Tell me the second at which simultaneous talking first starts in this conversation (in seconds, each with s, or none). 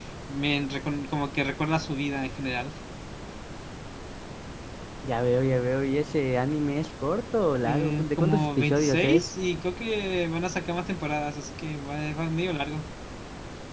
7.6 s